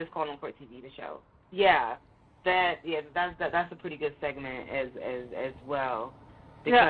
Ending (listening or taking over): taking over